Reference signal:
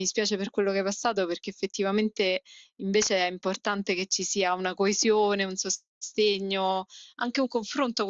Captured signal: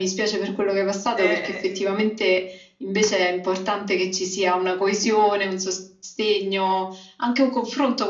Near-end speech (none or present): present